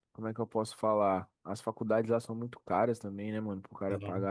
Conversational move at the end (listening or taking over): listening